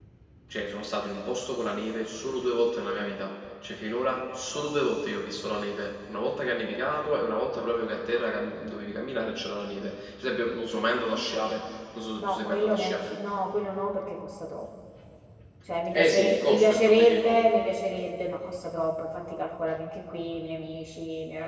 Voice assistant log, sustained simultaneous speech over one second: present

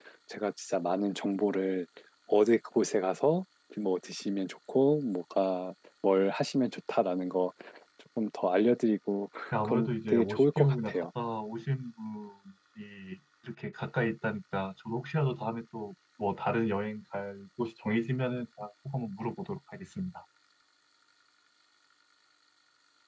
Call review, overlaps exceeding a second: present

